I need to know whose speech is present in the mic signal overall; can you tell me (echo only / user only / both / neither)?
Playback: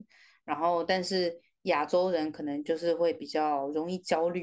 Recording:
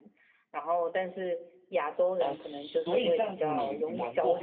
both